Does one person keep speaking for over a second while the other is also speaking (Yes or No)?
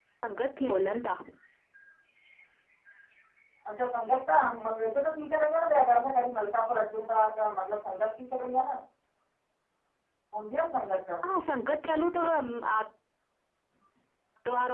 No